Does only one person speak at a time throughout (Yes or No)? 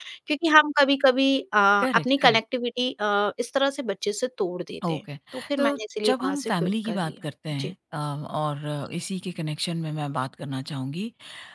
No